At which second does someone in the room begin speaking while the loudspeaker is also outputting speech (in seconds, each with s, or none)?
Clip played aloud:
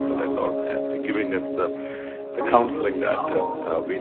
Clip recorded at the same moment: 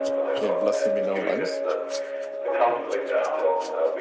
0.4 s